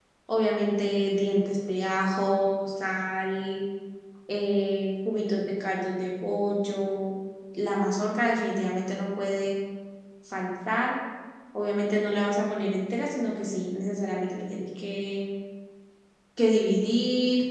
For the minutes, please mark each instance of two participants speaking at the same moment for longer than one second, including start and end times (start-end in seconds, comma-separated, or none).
none